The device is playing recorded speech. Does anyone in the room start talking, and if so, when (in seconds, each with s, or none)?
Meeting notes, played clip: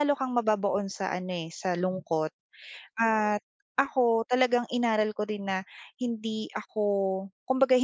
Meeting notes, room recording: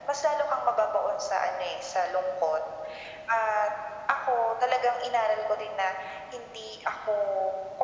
none